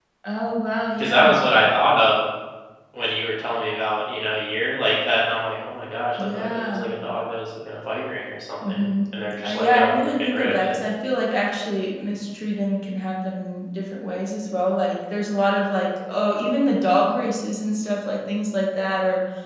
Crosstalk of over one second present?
Yes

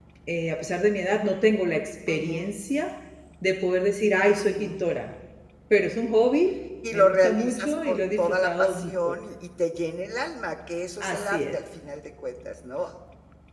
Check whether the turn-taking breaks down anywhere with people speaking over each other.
Yes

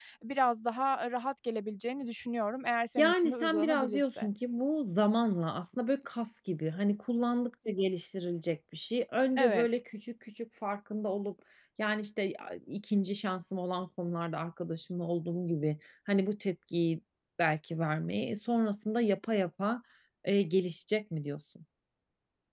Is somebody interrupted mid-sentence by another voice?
Yes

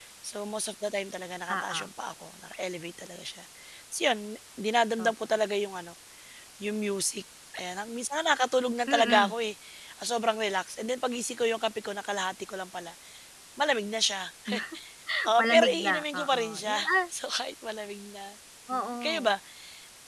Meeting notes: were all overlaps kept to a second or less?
No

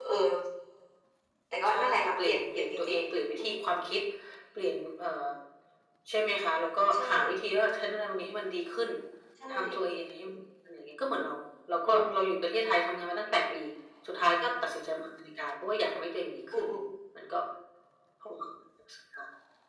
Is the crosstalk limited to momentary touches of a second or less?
No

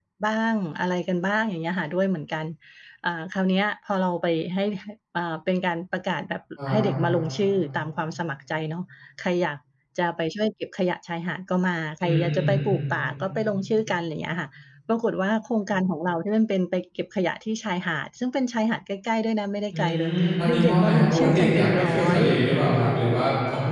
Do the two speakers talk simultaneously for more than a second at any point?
Yes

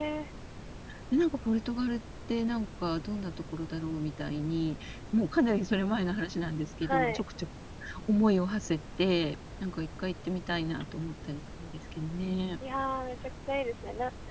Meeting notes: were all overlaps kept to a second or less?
Yes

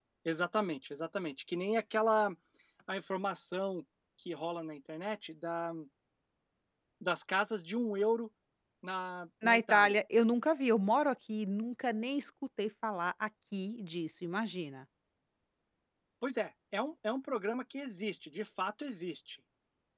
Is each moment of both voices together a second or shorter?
Yes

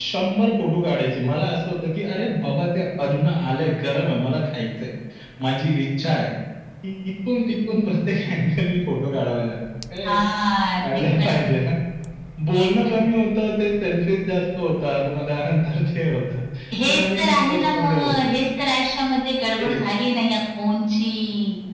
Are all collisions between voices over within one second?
No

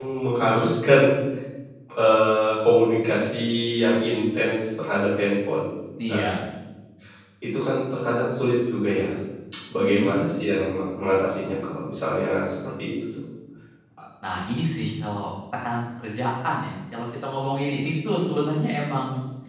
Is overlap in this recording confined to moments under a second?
Yes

